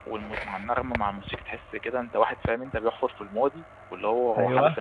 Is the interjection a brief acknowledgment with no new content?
Yes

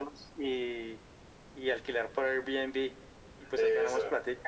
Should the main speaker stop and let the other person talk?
No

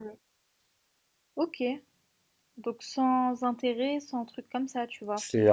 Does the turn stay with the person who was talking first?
No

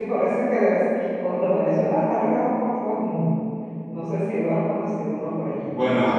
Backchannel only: No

